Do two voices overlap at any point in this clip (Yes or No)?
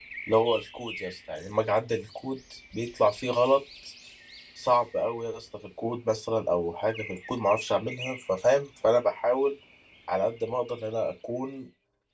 No